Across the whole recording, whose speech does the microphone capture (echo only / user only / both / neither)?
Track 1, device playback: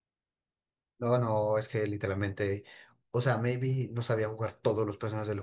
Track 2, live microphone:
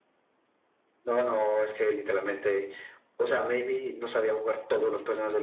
echo only